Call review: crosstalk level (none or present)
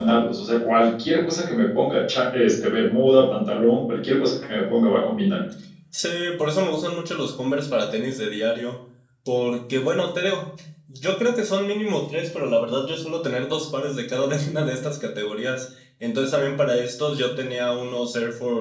none